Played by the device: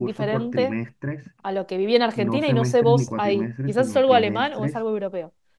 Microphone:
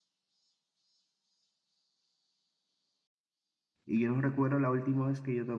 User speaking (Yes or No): Yes